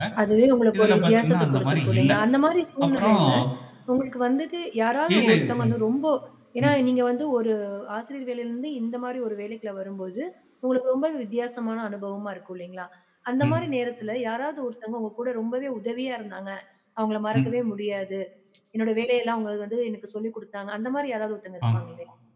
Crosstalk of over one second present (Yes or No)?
Yes